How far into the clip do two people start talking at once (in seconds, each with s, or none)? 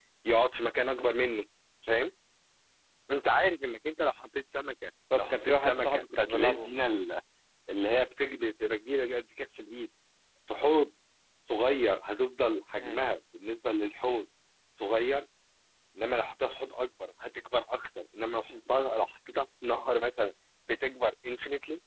5.3 s